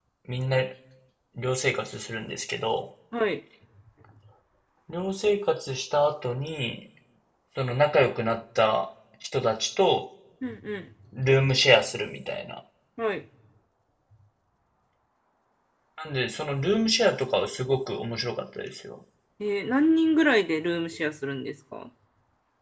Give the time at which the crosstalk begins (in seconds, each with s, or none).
none